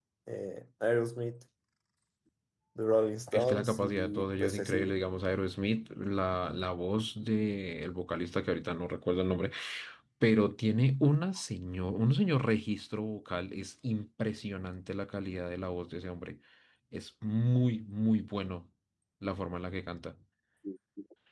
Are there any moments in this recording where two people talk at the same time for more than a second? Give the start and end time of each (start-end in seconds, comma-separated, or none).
3.3-5.0